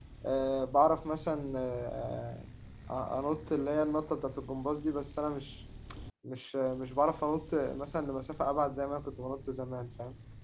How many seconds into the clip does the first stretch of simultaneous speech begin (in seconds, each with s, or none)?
none